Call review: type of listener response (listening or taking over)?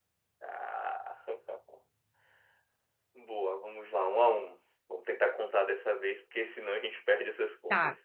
taking over